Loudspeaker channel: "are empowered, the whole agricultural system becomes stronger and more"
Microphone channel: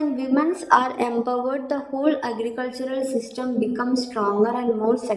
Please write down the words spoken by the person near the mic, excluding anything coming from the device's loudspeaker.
none

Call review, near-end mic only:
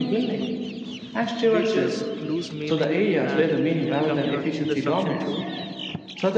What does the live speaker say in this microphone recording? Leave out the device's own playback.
wages lose meaning and, and income you know disruption too

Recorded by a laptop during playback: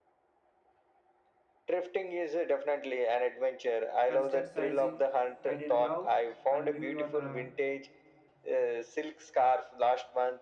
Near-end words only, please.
considered sizing? I didn't love and knew your uh,

